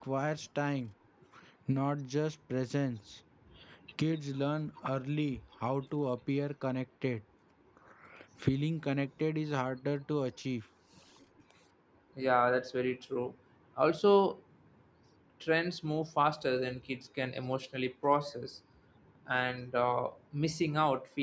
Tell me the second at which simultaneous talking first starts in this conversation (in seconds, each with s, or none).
none